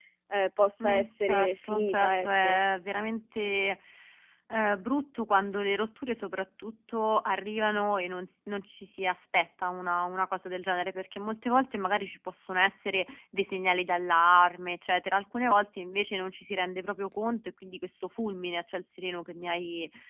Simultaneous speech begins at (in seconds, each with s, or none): 0.8 s